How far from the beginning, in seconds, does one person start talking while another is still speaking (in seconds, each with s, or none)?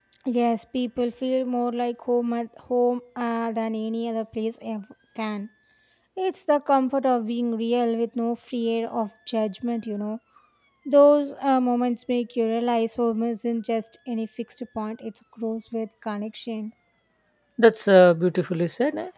none